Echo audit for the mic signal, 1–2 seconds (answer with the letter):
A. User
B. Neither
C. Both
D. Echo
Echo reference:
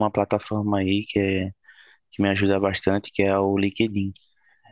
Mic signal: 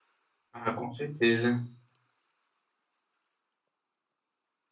A